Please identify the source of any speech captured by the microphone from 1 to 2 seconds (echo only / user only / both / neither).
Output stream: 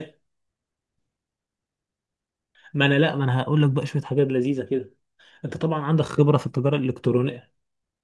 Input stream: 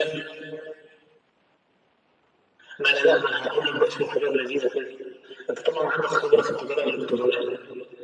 neither